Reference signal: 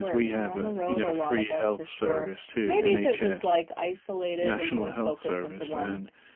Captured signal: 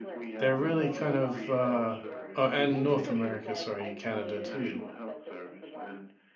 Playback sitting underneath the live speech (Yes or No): Yes